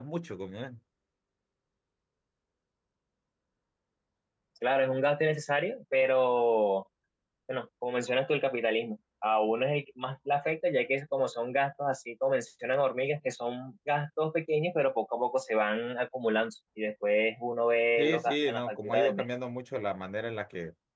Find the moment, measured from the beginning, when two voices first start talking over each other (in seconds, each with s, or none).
18.0 s